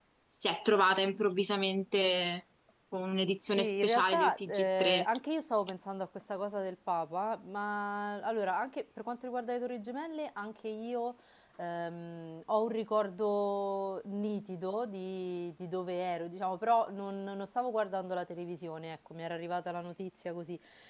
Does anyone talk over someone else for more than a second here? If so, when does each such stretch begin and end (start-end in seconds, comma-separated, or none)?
3.4-5.1